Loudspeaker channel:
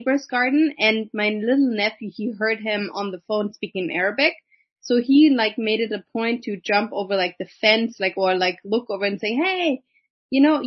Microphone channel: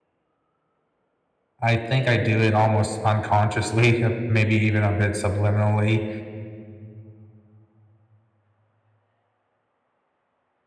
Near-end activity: present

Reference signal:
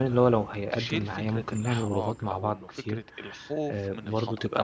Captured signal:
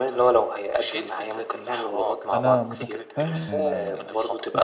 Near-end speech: present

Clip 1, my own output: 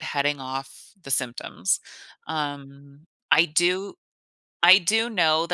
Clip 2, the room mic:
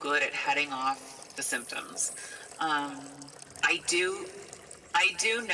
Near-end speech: none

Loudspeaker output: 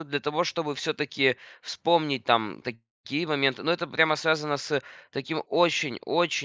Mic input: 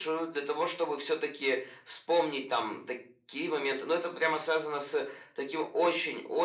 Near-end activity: none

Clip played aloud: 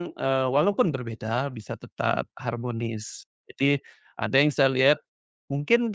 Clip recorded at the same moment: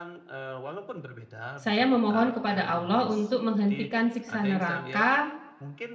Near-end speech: present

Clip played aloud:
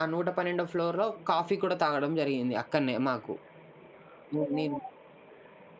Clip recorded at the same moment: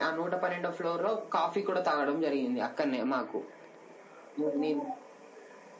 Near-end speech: none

